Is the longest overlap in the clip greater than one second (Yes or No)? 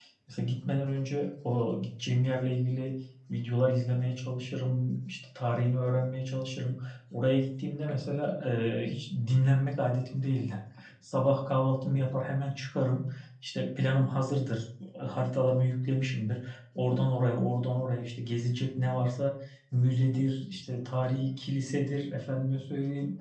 No